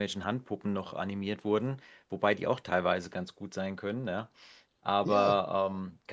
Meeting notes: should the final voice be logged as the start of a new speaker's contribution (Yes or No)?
No